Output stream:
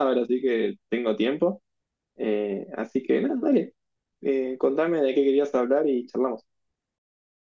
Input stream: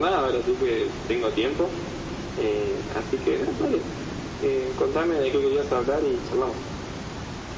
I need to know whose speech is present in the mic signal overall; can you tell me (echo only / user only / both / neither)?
echo only